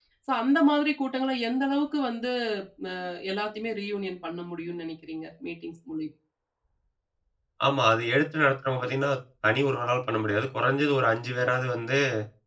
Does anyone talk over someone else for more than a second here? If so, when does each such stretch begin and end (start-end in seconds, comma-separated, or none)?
none